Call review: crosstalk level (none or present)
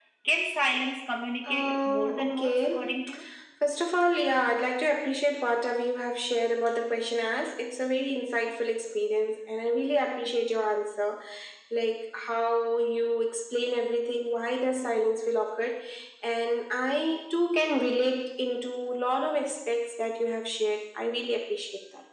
present